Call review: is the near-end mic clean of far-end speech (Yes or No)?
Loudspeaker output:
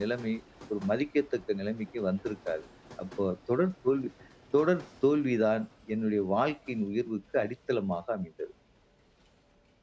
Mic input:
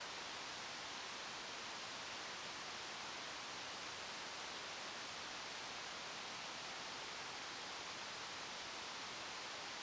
Yes